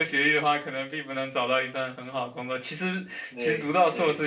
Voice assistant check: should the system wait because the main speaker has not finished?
Yes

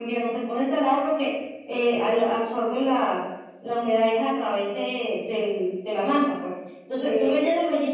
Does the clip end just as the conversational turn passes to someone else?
No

